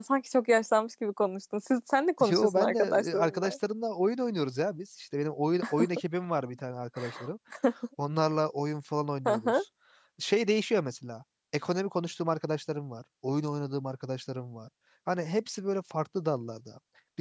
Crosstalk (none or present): present